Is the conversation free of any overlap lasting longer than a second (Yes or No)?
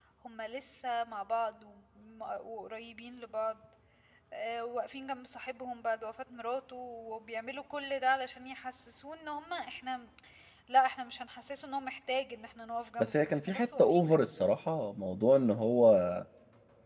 No